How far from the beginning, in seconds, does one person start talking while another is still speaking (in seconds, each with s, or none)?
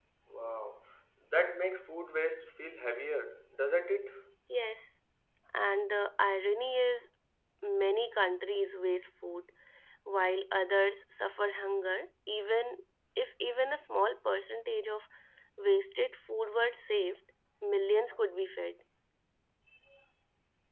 none